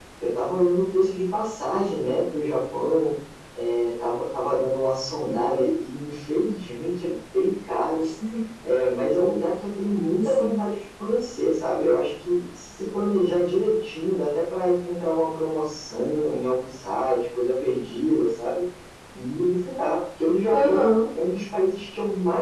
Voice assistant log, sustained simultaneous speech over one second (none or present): none